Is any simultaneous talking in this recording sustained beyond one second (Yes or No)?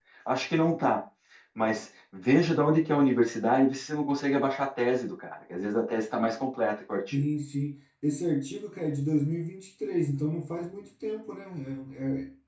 No